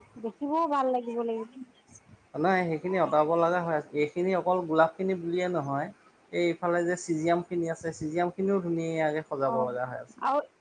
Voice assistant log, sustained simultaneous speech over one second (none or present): none